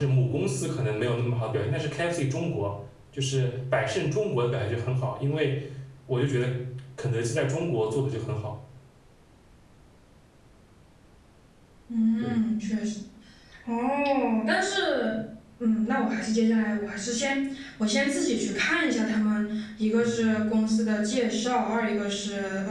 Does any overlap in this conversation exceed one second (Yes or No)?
No